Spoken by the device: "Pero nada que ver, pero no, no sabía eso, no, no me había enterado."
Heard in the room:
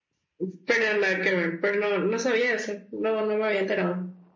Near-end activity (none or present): none